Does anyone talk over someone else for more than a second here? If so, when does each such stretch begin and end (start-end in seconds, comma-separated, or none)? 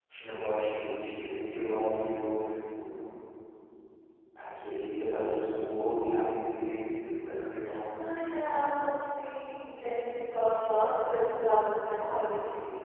none